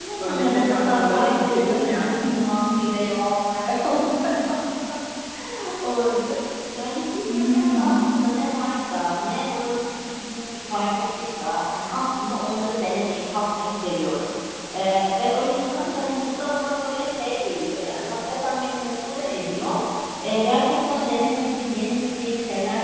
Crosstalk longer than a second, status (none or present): present